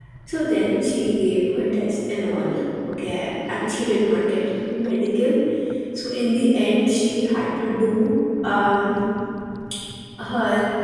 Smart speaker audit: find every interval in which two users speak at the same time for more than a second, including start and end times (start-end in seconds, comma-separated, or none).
none